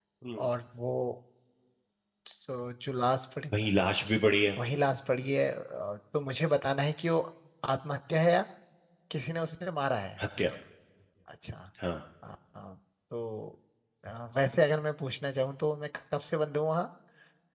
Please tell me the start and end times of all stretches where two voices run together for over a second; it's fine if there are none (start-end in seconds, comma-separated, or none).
none